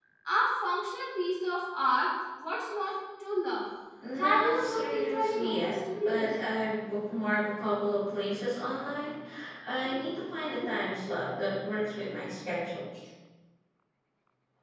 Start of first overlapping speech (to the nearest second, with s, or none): 4 s